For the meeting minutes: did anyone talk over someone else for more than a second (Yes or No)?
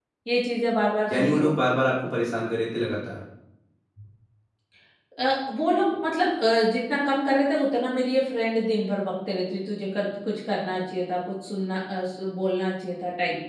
No